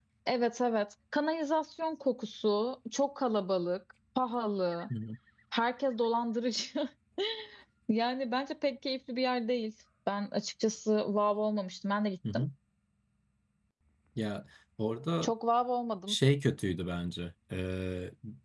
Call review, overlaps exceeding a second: none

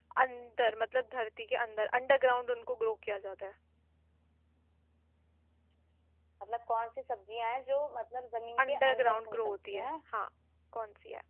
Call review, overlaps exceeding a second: present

